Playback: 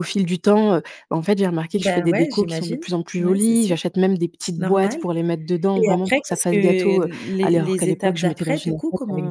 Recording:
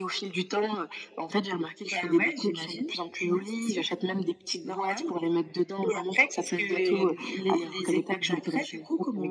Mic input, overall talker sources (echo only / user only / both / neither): echo only